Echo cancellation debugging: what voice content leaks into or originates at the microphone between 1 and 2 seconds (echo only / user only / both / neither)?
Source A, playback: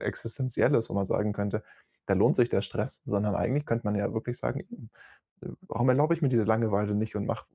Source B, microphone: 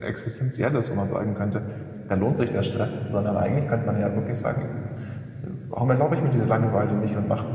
echo only